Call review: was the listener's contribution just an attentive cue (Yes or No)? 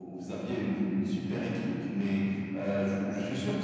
Yes